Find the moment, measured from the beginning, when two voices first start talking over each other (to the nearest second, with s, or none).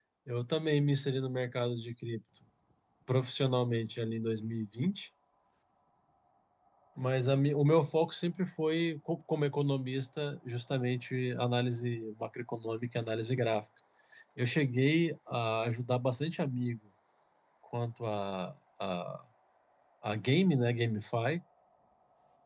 none